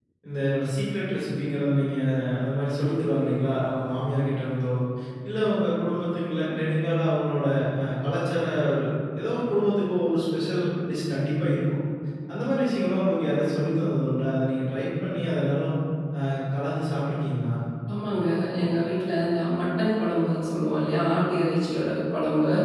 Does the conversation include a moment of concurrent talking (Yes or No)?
No